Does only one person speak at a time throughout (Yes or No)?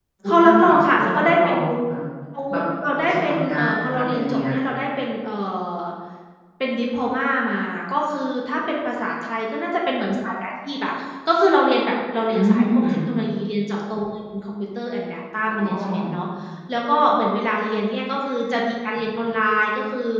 No